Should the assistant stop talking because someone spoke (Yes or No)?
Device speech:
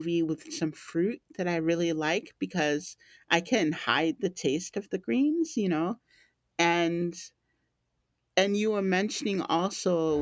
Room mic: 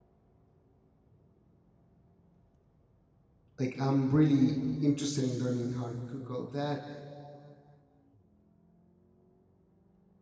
Yes